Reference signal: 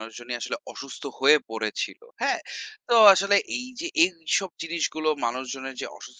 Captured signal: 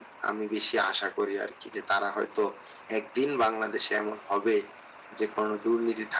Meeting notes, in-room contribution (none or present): present